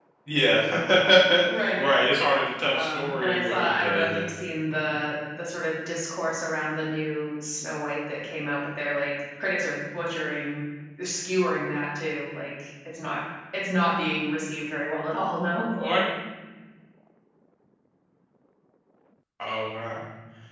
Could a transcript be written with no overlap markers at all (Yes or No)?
No